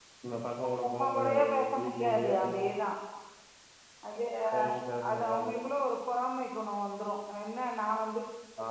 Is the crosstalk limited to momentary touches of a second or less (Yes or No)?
No